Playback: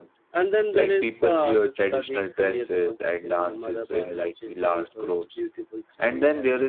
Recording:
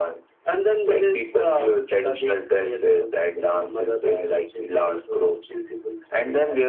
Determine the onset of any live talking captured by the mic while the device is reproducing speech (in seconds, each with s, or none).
none